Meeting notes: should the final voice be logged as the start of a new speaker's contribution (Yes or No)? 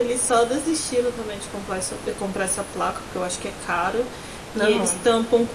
No